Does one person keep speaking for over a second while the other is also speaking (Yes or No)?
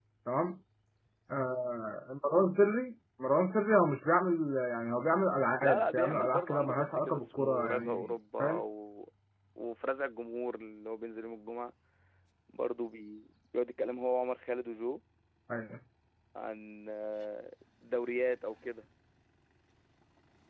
Yes